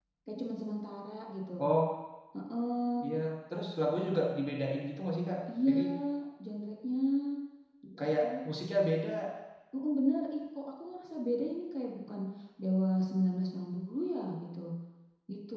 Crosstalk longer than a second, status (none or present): none